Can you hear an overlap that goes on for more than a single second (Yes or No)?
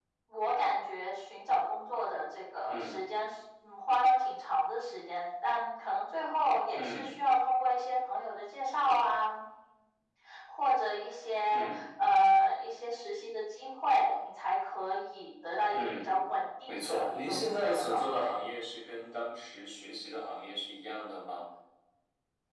Yes